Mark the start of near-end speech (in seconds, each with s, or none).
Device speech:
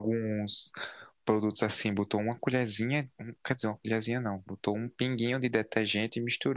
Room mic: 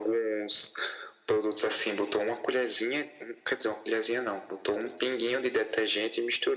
none